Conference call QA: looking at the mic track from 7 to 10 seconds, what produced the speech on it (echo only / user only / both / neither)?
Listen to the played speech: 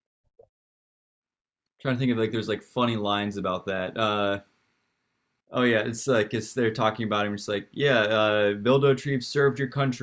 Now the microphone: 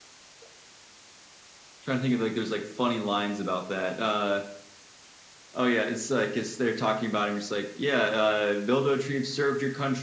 echo only